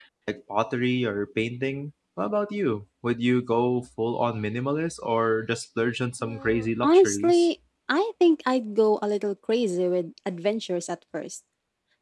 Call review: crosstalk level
present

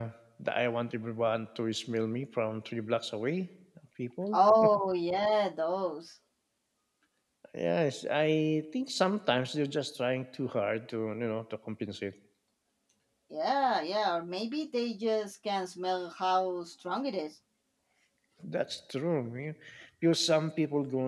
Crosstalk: none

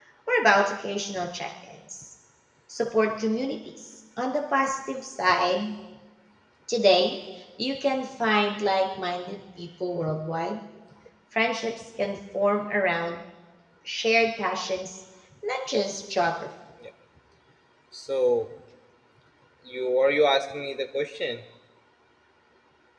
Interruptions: none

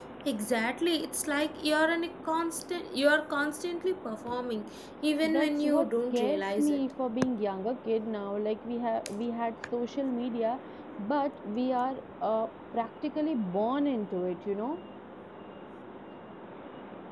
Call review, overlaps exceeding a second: present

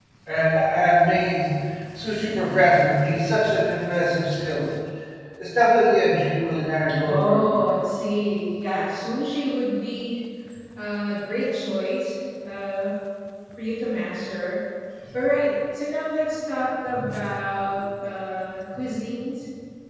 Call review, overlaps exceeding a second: none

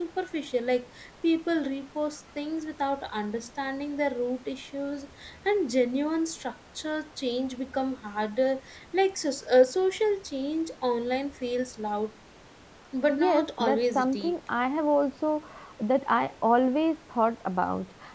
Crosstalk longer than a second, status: present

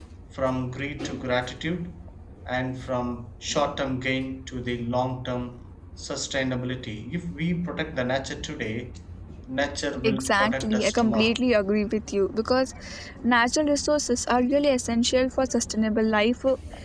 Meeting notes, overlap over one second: present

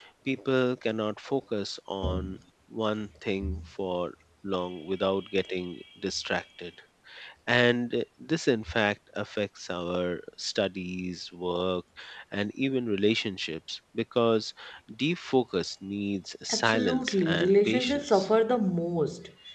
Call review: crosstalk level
present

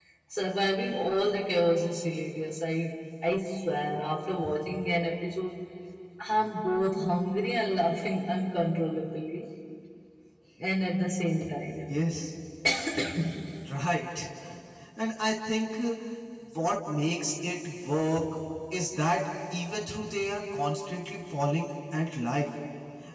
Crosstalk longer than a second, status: none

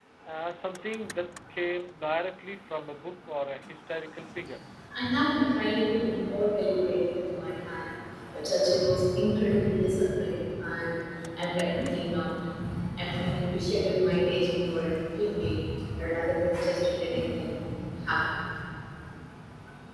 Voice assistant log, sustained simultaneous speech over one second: none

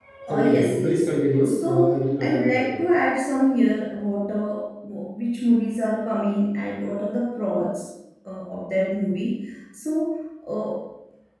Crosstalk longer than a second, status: present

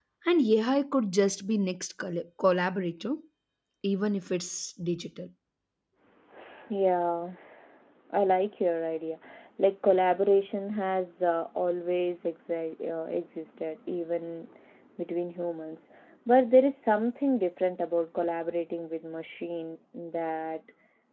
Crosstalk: none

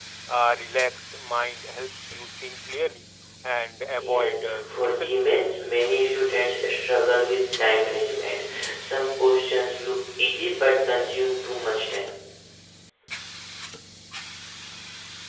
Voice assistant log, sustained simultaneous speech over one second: present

